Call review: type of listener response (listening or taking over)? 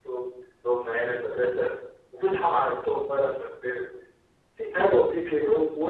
listening